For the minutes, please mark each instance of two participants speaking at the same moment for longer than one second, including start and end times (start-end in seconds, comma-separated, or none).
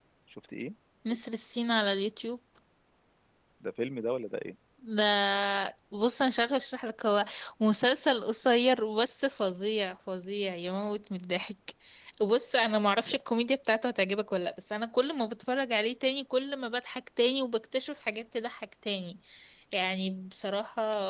none